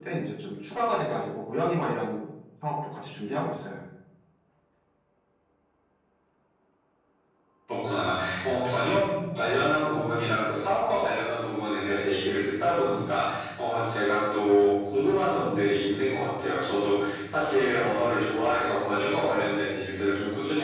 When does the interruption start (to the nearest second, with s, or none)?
none